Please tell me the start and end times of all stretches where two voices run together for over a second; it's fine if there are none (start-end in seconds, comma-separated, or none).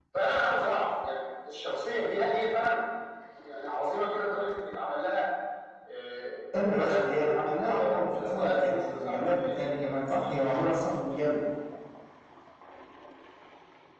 6.7-9.5